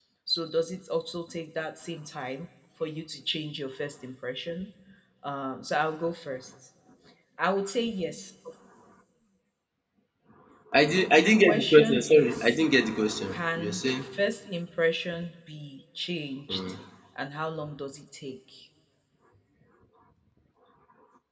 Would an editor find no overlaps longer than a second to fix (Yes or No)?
No